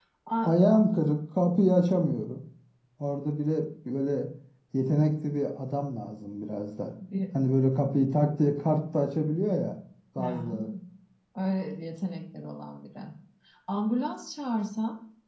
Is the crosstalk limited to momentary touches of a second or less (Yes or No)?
Yes